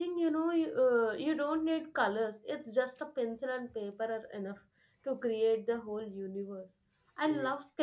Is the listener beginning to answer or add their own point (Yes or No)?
No